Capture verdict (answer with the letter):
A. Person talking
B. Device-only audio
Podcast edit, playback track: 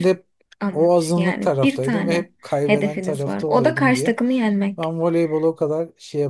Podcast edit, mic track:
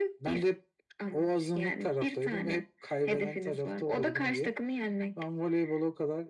B